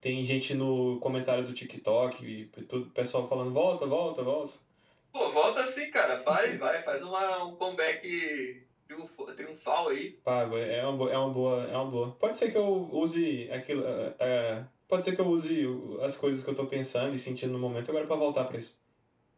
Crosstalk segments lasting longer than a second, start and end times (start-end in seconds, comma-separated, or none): none